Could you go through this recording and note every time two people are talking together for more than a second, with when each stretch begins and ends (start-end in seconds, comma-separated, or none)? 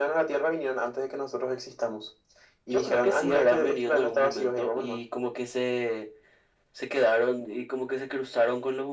2.7-5.0